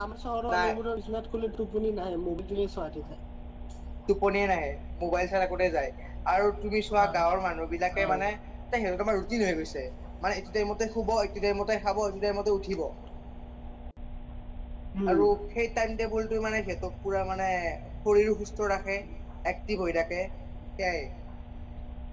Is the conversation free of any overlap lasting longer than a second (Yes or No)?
Yes